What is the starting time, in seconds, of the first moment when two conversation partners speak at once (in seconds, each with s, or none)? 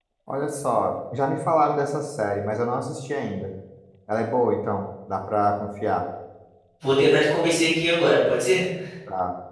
none